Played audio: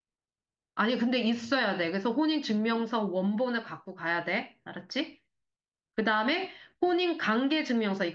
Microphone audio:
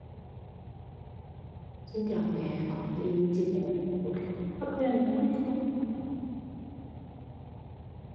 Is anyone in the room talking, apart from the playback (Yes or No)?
Yes